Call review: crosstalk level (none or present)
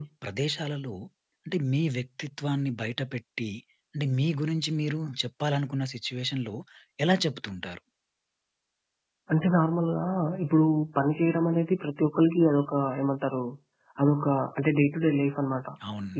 none